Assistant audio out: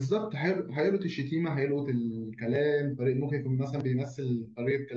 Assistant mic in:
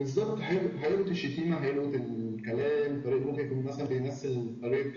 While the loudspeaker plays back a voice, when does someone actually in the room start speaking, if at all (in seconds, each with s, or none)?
none